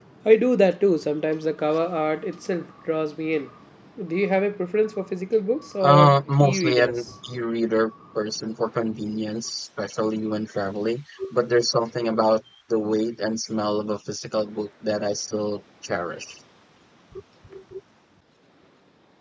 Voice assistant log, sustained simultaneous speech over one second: present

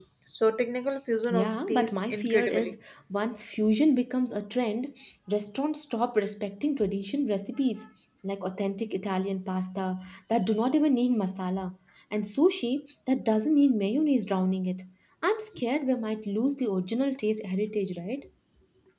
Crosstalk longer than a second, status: present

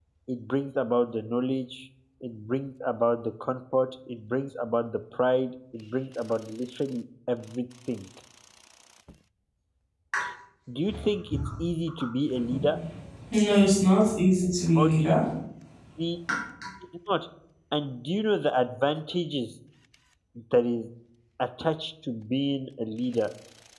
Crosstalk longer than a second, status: none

